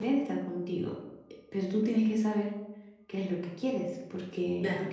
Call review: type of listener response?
listening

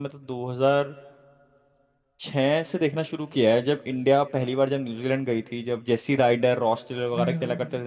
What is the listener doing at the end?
taking over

